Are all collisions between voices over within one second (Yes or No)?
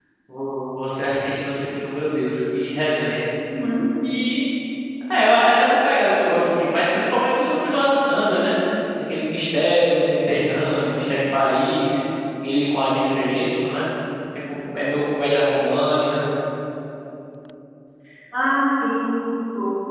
Yes